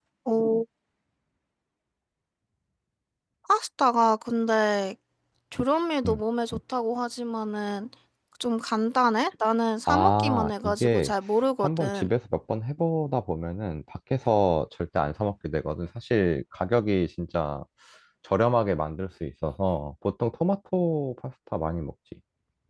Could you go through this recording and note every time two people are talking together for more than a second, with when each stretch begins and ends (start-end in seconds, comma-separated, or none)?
9.9-11.1